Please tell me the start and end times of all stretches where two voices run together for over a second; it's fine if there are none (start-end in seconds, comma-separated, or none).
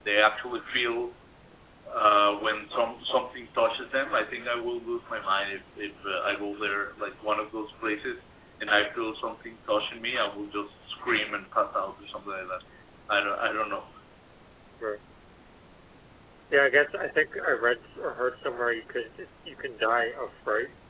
none